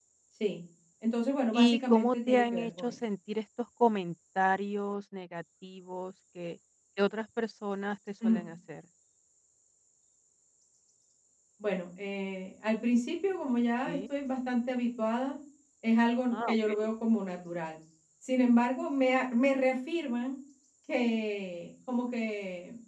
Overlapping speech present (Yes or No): Yes